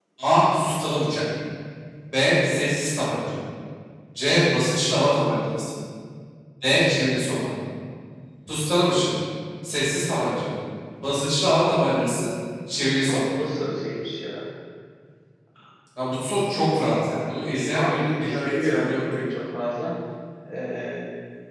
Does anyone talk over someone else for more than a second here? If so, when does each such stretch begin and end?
17.7-19.3

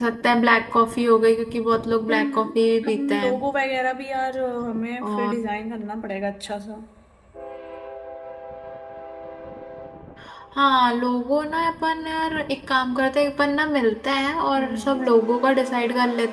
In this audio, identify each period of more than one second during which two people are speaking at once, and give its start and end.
2.1-3.4

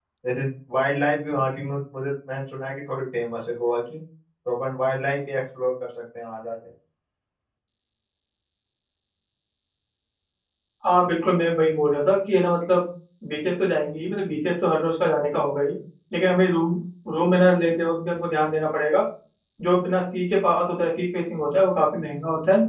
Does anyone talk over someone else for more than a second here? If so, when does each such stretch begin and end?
none

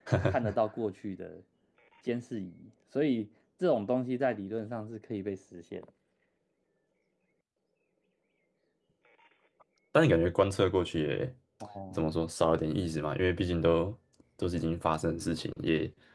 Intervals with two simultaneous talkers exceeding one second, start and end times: none

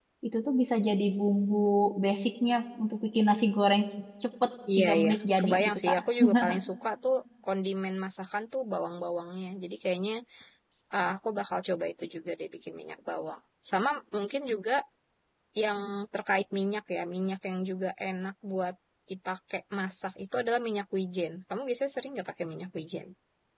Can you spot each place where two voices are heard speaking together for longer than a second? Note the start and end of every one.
4.8-6.0

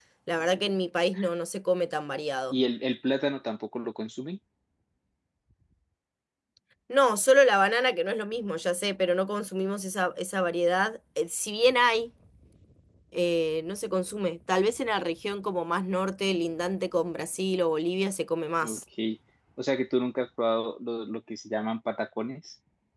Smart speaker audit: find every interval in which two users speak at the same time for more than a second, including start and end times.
none

